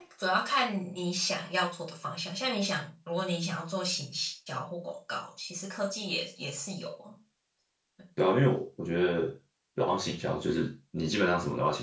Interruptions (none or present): none